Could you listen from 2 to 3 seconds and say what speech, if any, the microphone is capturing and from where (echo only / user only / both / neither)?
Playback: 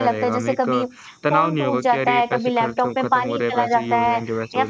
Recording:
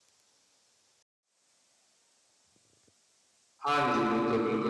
neither